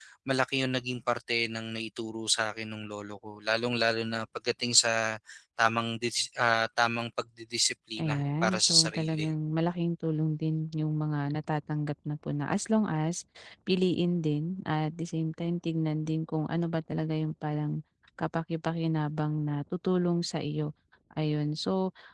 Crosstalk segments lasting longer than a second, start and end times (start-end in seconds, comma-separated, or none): 8.0-9.3